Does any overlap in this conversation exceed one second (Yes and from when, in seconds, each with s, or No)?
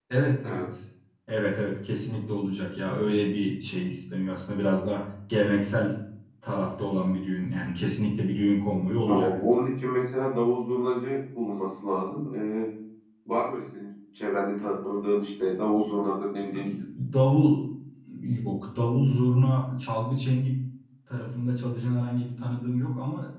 No